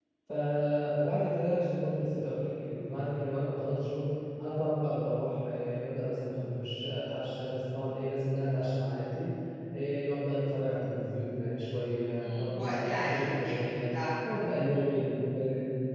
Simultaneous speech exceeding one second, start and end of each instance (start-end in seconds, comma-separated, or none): 12.2-13.9